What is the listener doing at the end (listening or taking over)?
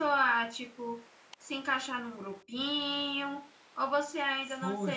taking over